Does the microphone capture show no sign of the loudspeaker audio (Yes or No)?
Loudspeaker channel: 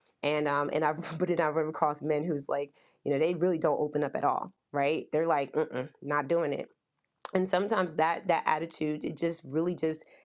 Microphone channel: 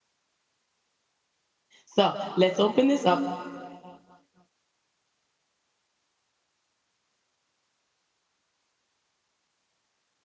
Yes